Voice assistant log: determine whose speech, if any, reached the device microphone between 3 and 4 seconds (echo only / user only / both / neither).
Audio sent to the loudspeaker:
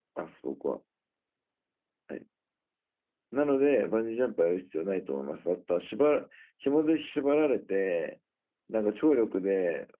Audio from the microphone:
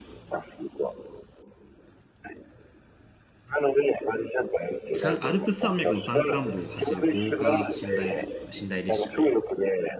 echo only